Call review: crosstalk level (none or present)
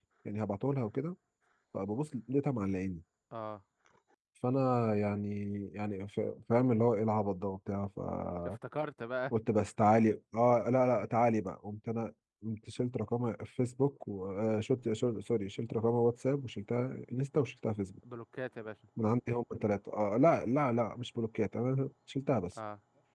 none